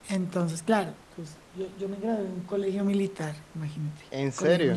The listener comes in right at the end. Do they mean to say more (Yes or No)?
No